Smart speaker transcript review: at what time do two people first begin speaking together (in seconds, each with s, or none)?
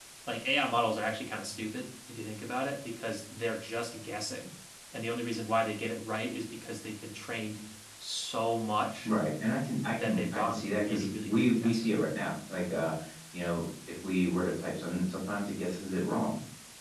9.9 s